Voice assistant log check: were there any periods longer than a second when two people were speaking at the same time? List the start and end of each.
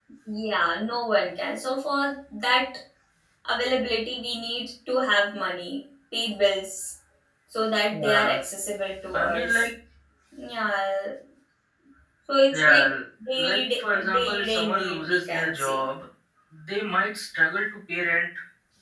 13.4-15.8

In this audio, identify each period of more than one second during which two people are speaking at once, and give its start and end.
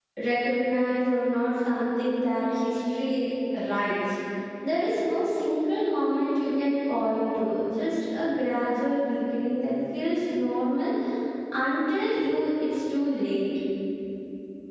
none

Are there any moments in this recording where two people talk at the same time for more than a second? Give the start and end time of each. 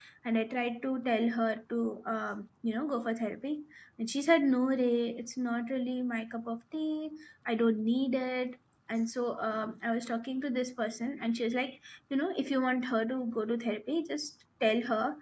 none

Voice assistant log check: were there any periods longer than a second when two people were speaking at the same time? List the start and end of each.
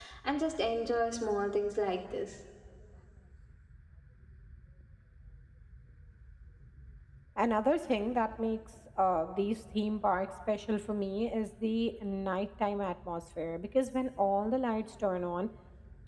none

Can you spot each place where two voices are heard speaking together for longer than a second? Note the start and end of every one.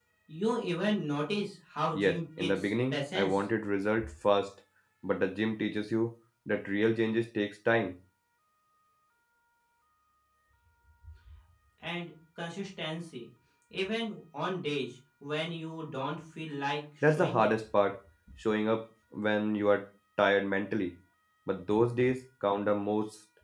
1.9-3.4

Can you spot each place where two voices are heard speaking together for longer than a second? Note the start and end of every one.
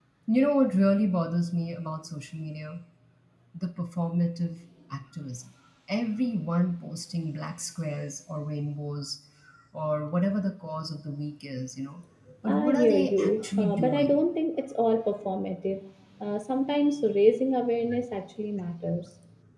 12.4-14.2

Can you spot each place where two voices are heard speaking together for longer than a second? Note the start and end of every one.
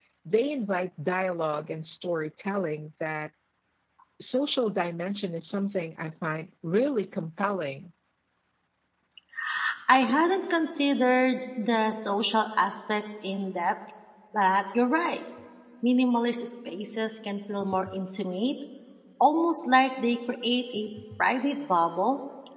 none

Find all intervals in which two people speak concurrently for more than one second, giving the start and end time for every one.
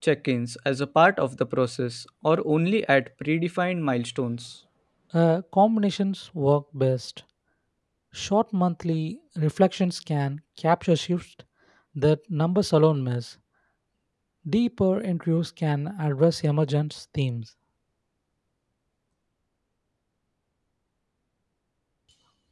none

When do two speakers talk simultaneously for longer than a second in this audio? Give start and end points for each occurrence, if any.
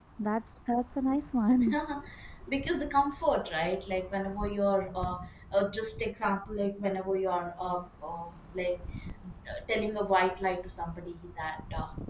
none

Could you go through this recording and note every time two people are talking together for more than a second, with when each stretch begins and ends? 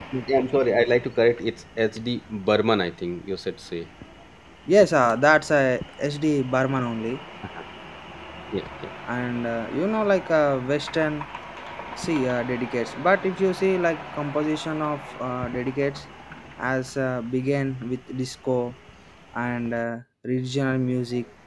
none

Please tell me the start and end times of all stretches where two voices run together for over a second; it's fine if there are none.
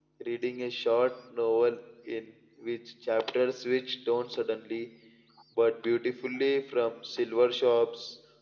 none

